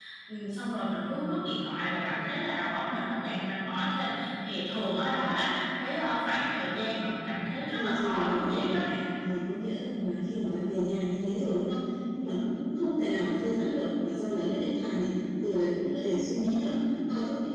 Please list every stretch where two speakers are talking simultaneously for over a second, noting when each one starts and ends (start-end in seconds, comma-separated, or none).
7.7-8.8